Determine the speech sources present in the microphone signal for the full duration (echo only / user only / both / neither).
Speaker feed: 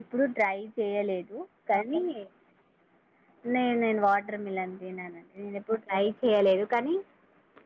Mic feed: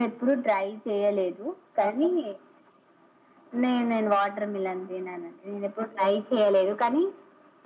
echo only